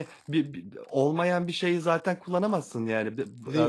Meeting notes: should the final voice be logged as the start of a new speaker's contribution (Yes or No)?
No